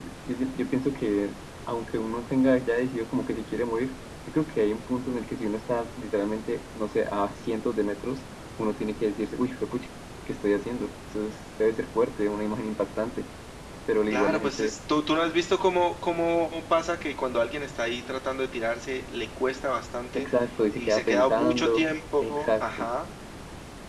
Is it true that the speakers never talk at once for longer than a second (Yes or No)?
No